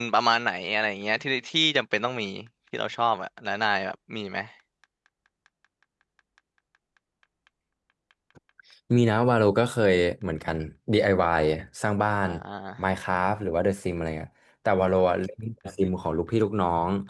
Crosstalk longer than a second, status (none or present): none